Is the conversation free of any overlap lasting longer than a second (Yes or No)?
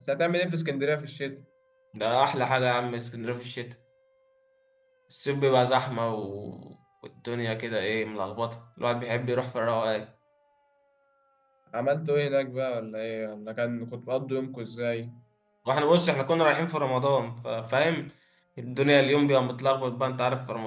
Yes